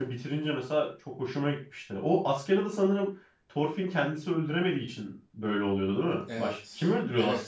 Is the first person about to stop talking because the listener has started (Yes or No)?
Yes